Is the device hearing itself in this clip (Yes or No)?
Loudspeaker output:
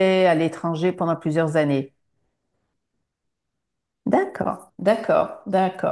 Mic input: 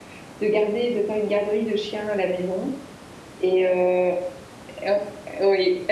No